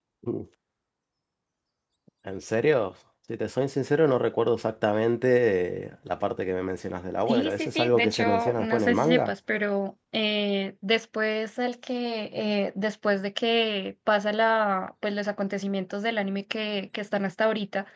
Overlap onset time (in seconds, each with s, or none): 7.3 s